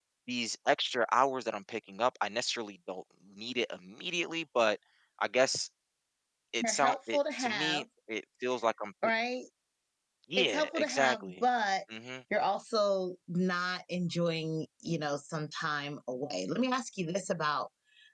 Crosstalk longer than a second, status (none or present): present